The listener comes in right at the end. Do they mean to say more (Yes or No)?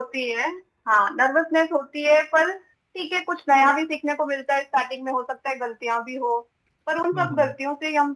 No